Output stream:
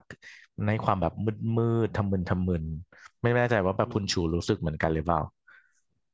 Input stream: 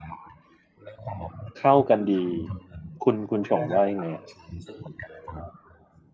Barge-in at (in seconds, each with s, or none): 1.6 s